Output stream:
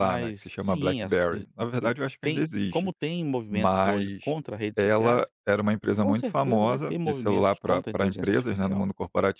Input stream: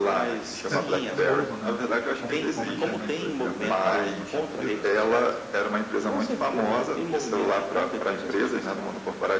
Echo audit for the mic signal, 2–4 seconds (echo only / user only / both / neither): both